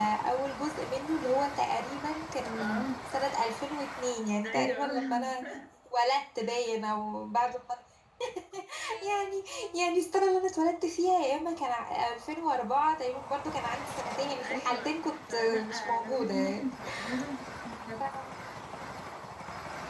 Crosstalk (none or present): present